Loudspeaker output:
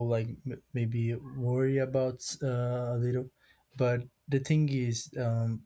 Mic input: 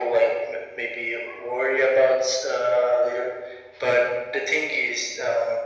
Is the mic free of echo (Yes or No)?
No